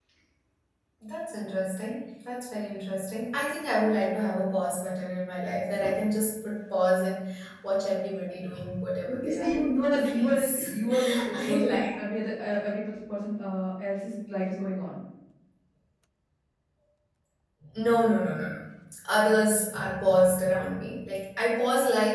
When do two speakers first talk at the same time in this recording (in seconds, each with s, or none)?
9.1 s